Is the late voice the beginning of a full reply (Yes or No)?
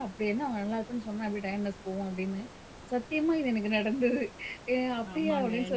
Yes